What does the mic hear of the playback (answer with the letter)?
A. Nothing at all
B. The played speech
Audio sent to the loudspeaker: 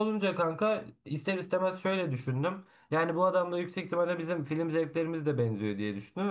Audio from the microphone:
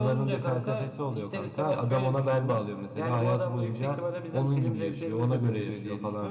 B